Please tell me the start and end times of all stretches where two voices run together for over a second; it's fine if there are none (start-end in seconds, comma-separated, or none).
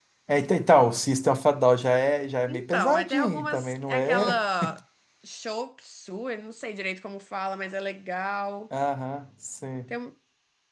2.5-4.4